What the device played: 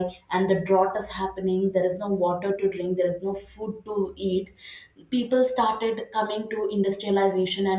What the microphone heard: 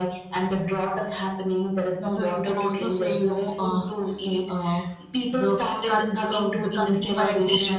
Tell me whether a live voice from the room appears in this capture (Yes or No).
Yes